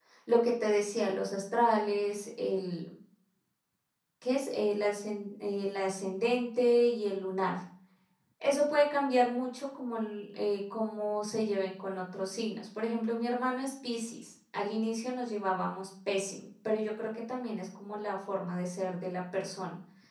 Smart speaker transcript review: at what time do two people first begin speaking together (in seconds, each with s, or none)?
none